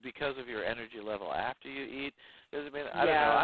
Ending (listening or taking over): listening